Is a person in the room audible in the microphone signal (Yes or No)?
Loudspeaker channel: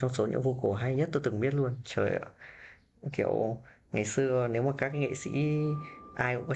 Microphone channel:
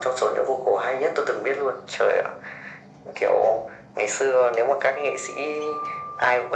No